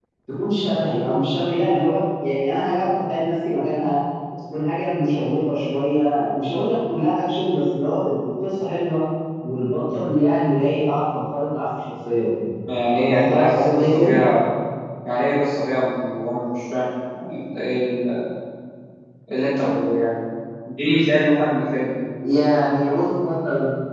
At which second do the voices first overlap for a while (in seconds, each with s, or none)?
12.6 s